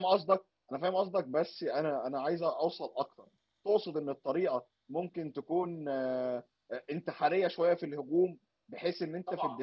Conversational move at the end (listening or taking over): listening